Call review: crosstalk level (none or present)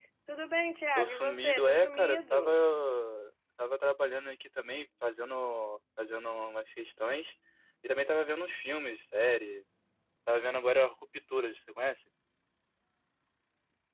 present